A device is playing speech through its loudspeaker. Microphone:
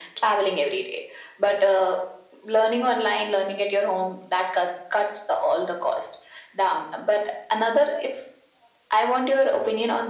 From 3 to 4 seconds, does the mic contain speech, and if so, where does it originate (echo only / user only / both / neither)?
echo only